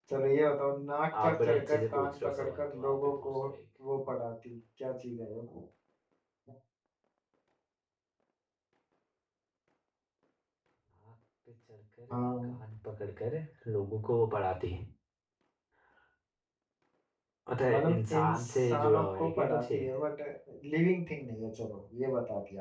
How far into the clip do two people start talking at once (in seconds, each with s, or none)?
1.2 s